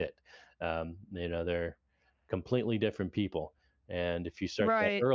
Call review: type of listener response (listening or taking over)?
listening